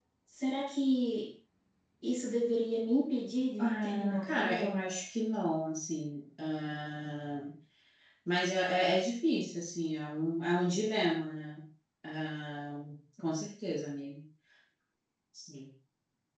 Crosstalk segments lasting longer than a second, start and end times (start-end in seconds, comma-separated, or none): 3.6-4.8